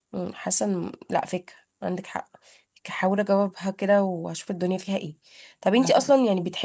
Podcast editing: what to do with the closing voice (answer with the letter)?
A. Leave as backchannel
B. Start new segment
A